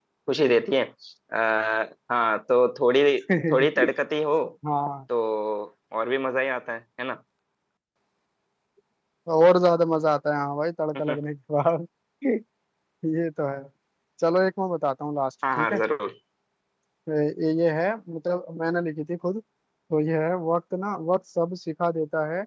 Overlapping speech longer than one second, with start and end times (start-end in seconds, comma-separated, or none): none